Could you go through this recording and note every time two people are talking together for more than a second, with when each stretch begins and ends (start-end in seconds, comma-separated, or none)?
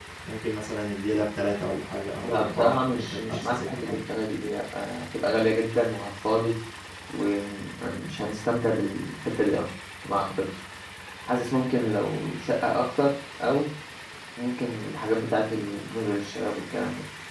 2.2-4.0